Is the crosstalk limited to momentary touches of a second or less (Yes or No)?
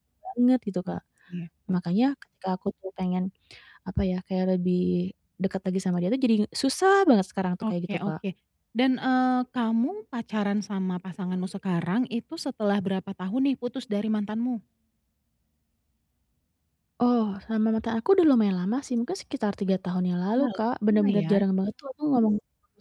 Yes